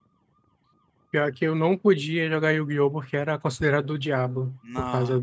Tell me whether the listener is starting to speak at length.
No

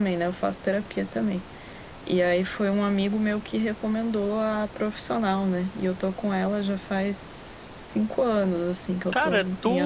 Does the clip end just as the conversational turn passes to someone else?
Yes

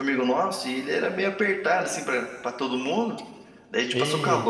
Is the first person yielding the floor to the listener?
No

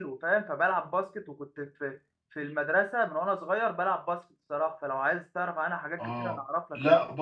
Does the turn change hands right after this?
Yes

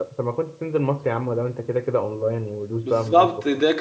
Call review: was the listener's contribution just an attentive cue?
No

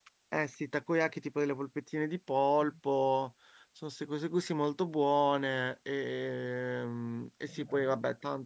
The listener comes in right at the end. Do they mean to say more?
No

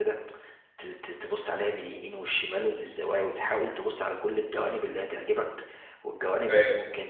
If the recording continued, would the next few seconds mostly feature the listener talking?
No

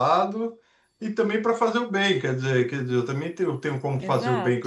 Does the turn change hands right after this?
Yes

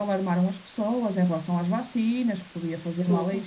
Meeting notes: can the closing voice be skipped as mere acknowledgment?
Yes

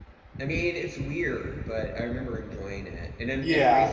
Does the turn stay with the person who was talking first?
Yes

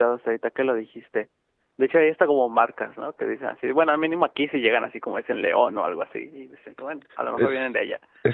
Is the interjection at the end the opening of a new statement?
Yes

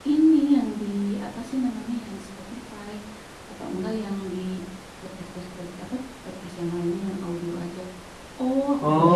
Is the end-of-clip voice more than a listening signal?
Yes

